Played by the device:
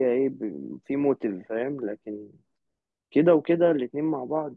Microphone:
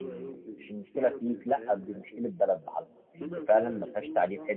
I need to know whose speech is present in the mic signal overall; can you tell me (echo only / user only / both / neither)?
both